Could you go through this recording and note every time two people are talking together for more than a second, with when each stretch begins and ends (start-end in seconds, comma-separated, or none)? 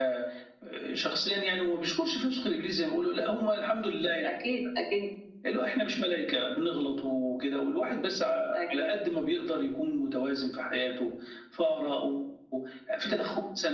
none